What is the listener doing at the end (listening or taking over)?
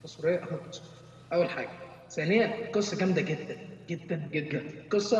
listening